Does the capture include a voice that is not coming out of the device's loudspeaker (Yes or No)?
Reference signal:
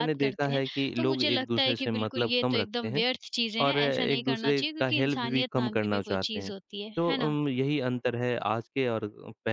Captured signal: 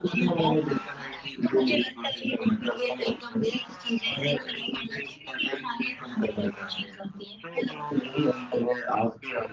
No